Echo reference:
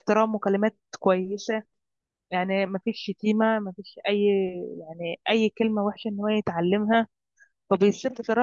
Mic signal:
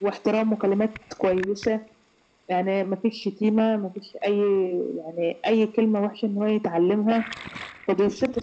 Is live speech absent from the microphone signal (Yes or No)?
Yes